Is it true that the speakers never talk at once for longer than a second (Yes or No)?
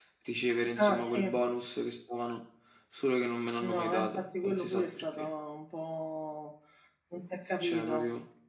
No